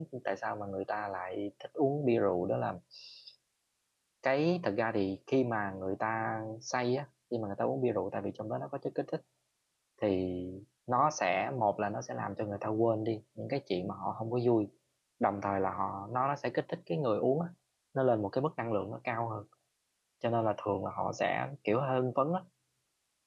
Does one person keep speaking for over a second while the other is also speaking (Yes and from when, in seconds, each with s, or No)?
No